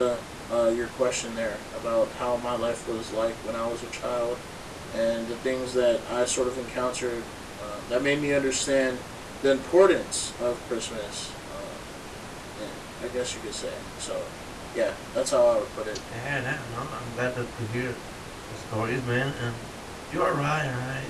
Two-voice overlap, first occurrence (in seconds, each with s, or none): none